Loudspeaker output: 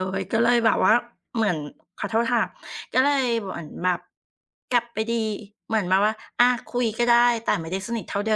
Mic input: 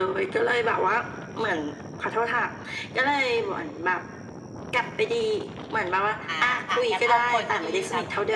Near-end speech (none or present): present